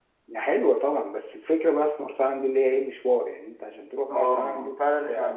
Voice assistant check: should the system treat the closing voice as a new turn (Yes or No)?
Yes